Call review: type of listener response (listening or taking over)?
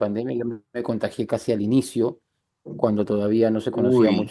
listening